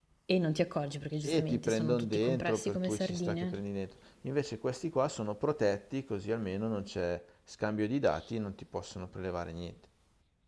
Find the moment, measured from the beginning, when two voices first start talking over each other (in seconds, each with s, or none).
1.2 s